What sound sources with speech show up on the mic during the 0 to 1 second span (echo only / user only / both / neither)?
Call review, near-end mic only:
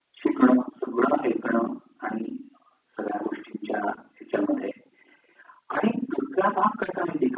echo only